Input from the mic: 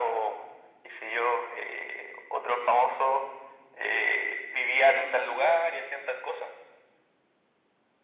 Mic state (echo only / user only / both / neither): echo only